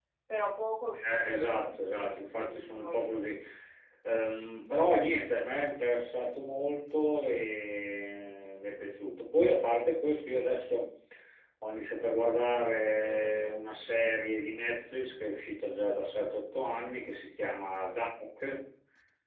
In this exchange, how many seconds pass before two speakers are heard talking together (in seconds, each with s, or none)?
1.0 s